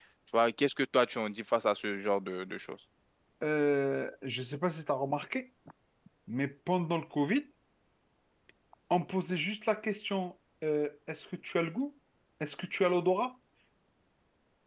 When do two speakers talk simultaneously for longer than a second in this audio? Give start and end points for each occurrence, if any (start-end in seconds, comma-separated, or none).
none